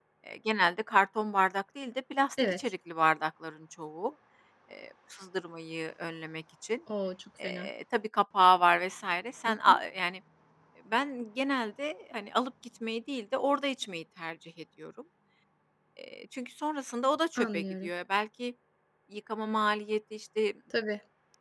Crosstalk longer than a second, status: none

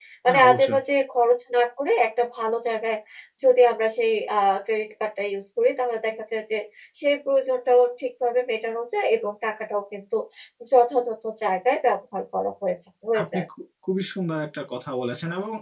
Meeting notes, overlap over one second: none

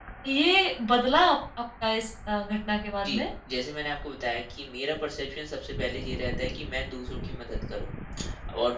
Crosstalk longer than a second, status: none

